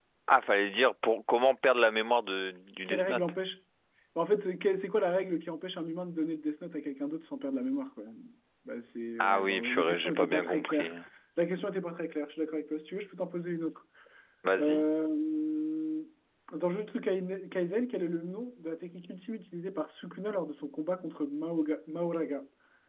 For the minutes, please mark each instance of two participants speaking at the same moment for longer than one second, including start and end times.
9.2-10.9

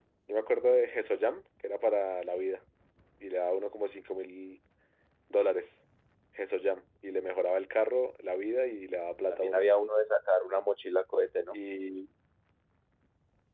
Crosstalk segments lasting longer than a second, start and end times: none

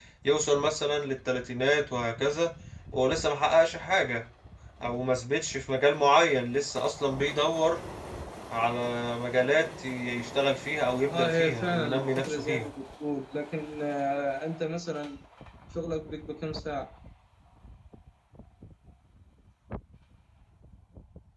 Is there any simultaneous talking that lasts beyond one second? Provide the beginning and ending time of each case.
11.1-12.6

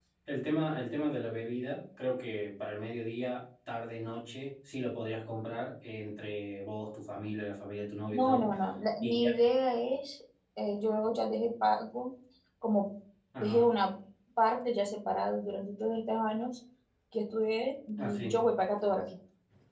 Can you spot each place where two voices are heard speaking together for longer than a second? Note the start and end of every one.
none

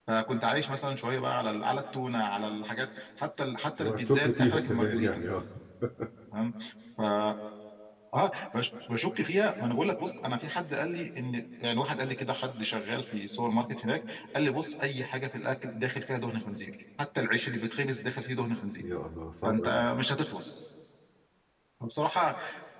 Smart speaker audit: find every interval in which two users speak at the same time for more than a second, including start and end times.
3.8-5.2

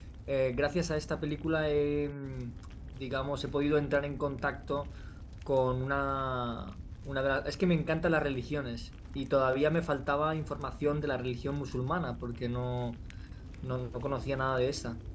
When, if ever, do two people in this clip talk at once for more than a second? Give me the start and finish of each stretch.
none

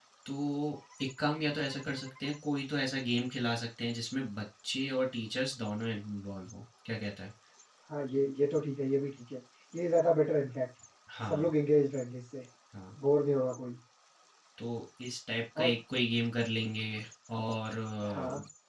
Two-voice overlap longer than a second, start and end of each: none

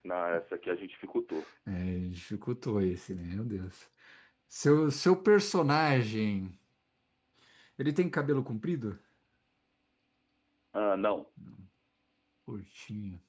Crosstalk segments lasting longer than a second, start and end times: none

